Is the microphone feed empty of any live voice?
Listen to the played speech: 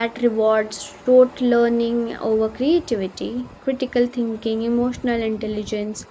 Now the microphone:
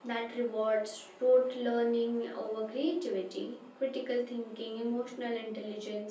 Yes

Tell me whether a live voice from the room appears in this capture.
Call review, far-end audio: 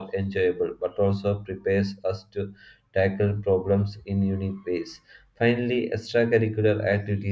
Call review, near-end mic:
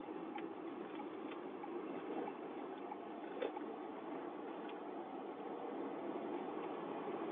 No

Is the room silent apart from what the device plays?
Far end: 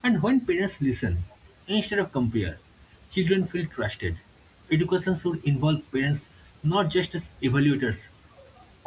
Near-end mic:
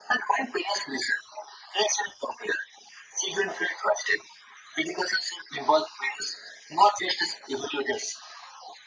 Yes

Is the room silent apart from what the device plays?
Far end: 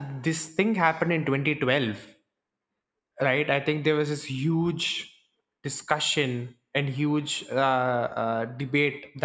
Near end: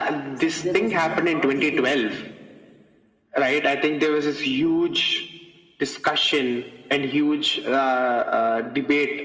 No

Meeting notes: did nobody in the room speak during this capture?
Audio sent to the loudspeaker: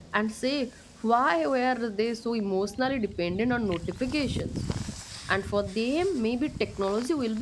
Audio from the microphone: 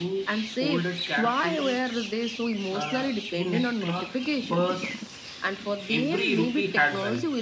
No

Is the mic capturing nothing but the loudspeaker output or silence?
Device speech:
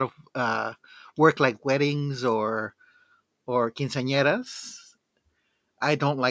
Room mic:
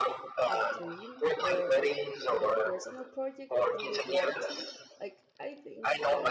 No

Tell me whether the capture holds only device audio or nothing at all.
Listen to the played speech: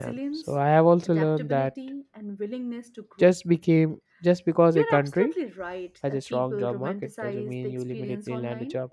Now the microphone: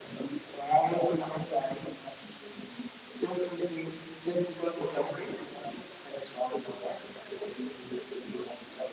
Yes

